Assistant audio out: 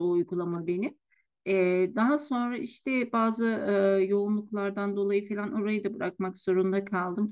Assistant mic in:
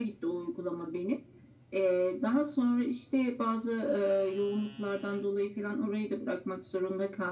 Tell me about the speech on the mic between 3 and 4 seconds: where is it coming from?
echo only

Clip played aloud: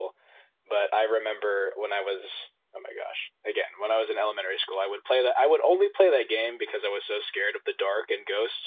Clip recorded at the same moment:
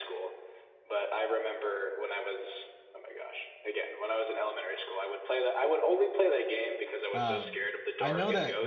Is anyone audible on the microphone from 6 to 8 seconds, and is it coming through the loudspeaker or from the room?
both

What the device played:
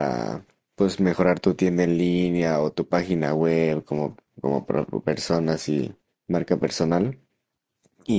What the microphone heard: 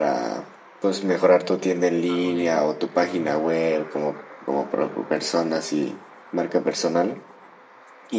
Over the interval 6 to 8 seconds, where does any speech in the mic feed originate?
echo only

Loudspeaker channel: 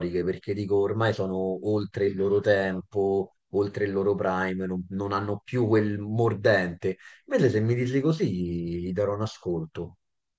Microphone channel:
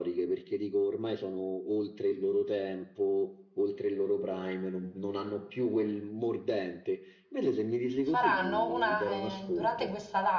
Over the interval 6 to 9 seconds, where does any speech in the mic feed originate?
both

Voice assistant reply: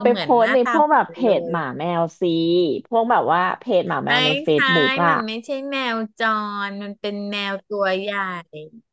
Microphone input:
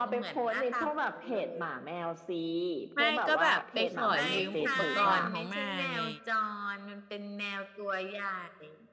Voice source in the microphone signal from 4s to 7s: both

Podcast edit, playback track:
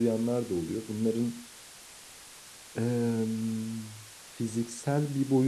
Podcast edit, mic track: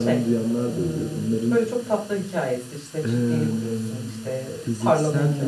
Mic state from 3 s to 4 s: both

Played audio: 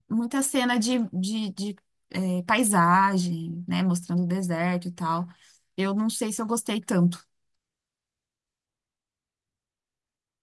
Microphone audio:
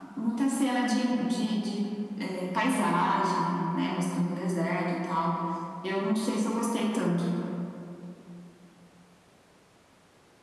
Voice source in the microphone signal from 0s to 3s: echo only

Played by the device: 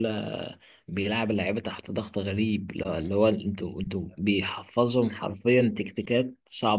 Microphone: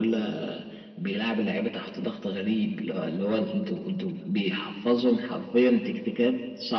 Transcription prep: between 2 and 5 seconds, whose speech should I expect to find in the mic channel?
echo only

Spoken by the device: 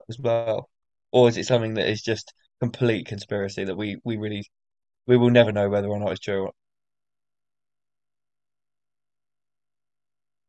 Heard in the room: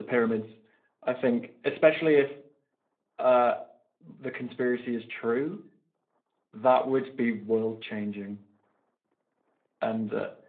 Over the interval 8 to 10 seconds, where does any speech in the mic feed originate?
user only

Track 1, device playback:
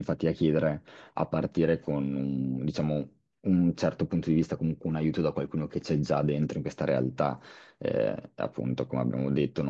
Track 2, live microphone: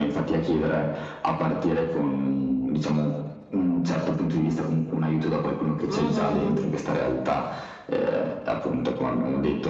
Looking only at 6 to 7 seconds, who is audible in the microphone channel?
both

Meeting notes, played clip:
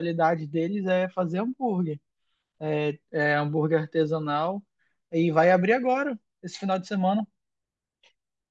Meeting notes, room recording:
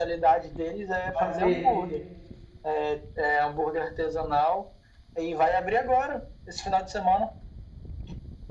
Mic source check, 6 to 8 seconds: echo only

